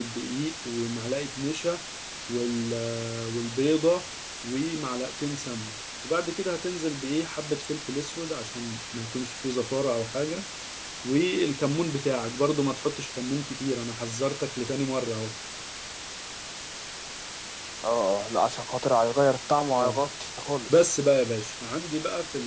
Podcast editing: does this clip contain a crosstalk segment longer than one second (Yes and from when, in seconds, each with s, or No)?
No